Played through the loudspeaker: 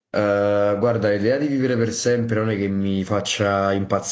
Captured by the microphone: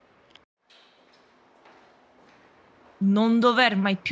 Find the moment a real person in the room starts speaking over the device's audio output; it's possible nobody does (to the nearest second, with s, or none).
3 s